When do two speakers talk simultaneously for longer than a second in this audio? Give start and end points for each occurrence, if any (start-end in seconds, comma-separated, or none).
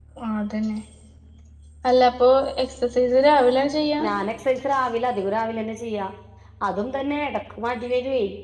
none